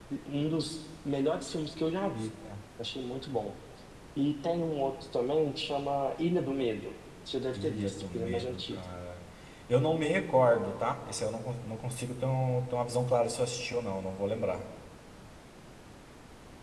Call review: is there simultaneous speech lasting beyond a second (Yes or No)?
Yes